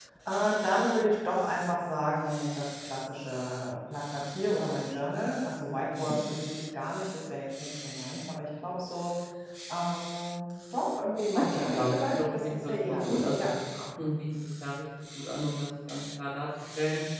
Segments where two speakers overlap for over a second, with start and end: 11.3-13.5

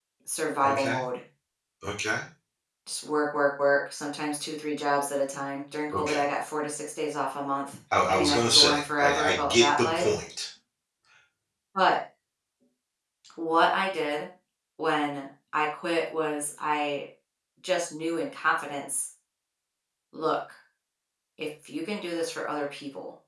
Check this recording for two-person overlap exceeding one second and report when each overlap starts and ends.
8.1-10.1

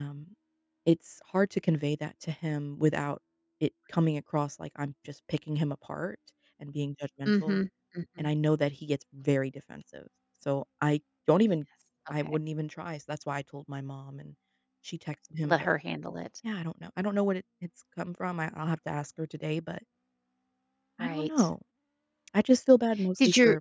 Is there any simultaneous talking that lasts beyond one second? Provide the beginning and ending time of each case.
none

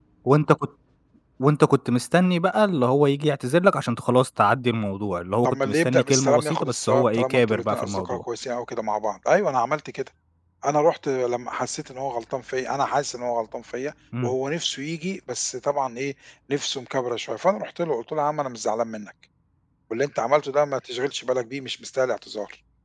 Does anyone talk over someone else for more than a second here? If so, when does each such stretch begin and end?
5.4-8.2

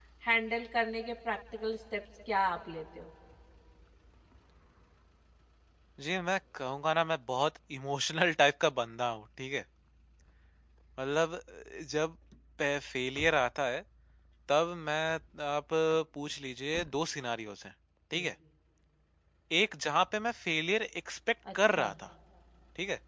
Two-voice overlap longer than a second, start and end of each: none

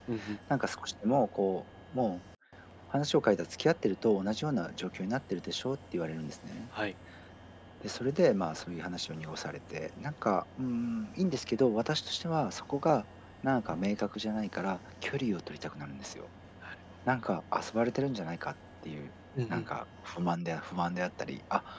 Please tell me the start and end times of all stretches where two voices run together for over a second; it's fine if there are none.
none

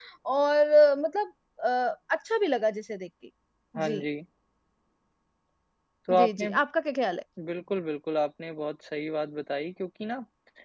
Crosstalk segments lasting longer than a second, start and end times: none

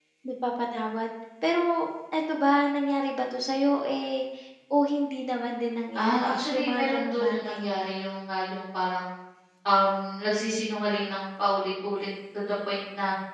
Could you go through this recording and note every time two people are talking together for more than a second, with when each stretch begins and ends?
5.9-7.6

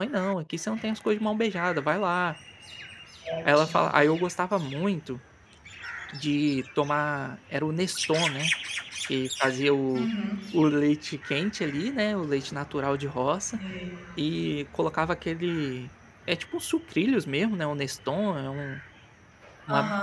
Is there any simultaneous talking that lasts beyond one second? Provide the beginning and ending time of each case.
none

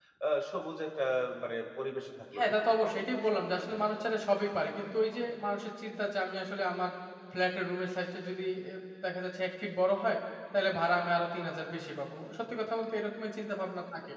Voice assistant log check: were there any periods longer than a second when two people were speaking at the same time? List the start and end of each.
2.4-3.8

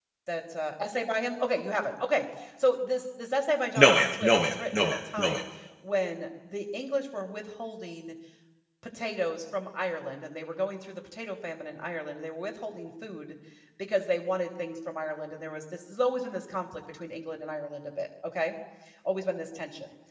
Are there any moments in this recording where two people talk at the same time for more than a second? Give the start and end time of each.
3.8-5.4

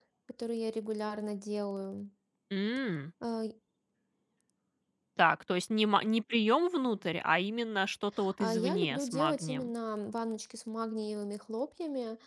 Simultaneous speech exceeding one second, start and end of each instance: 8.4-9.7

